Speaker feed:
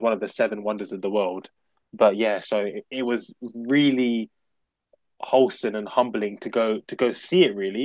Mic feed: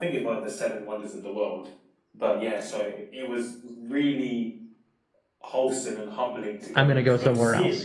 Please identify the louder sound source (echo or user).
user